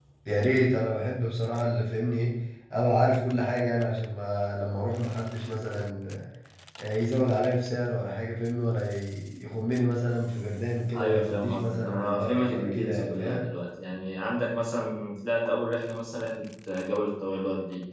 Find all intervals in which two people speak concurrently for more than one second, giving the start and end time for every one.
11.0-13.4

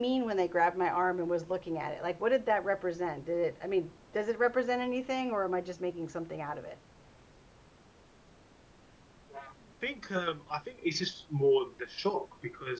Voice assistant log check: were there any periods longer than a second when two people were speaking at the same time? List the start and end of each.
none

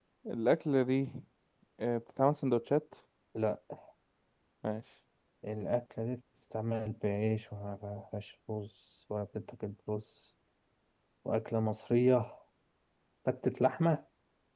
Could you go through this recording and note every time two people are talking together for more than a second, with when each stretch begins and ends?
none

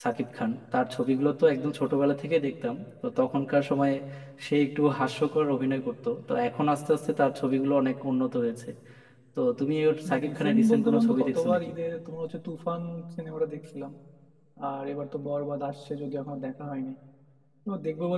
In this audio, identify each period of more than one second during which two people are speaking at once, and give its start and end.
10.3-11.6

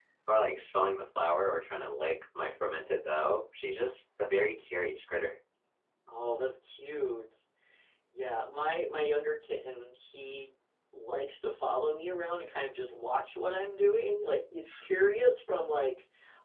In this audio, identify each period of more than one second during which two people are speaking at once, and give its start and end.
none

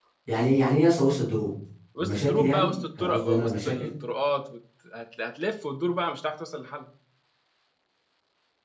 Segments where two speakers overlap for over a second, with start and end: 2.0-3.9

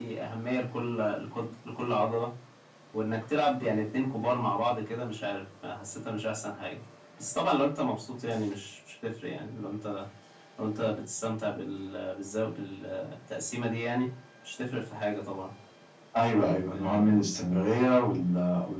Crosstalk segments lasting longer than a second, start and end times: none

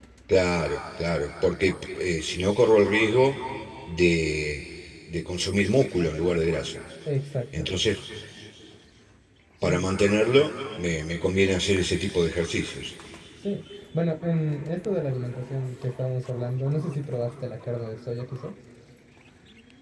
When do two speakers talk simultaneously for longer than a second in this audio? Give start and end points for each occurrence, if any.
none

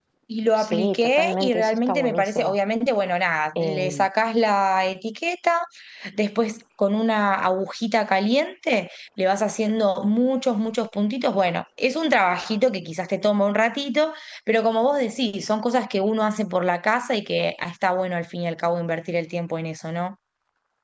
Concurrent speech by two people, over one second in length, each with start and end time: 0.5-2.5

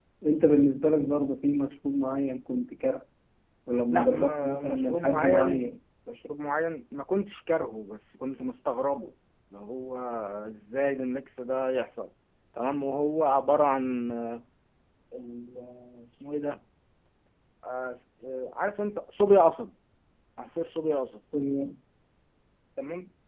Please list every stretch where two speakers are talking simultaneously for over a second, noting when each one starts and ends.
3.9-5.7

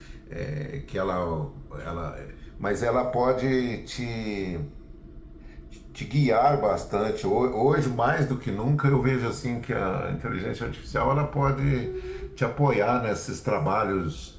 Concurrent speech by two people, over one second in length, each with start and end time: none

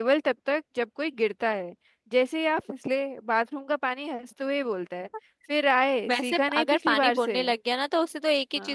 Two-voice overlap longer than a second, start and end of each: 6.1-7.4

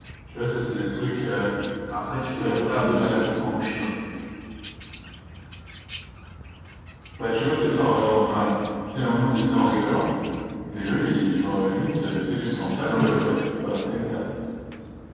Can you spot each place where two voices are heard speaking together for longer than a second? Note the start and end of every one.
2.4-3.6

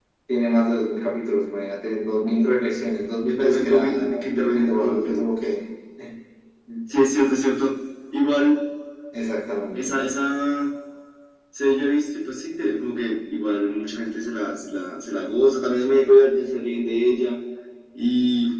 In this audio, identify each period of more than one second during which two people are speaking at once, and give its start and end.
3.3-5.2

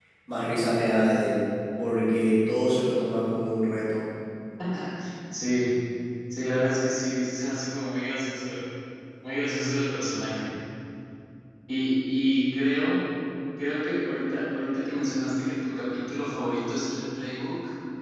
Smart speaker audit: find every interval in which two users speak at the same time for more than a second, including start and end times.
none

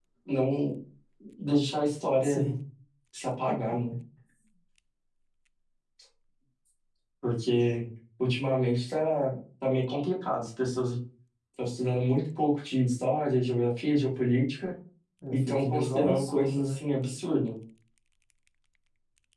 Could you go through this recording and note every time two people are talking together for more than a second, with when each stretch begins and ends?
15.3-16.8

